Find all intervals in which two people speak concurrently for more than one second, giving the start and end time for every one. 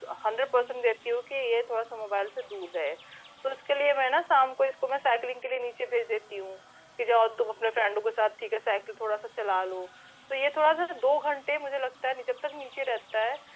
none

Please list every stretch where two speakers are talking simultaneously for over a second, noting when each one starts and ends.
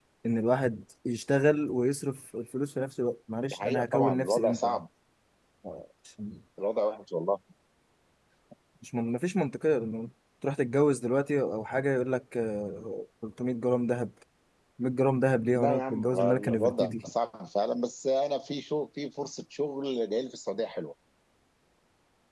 3.5-4.8, 15.6-17.1

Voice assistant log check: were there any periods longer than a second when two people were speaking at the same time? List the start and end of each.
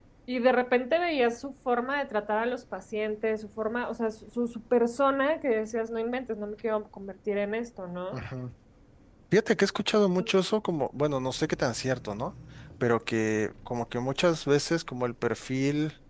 none

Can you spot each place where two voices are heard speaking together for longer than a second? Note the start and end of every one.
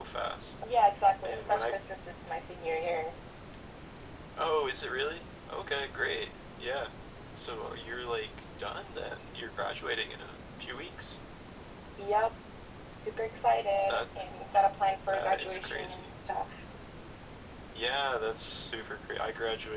14.8-16.1

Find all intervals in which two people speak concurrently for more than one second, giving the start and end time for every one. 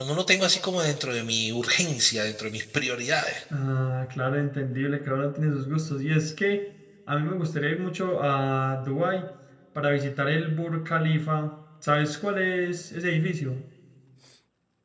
none

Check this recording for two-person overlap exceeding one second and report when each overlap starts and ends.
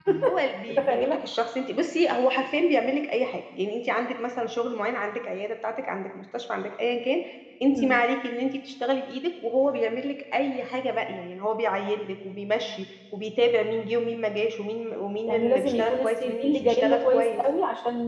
15.3-17.4

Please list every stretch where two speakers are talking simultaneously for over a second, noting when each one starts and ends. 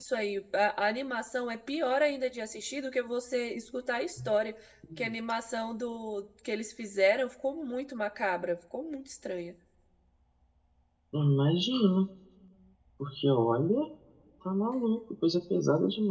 none

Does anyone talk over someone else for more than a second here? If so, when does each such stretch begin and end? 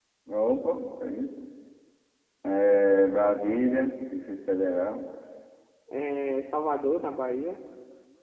none

